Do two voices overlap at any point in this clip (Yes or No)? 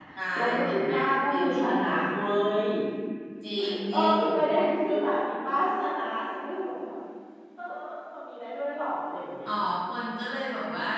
Yes